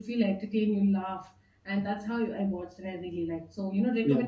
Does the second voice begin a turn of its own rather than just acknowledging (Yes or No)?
No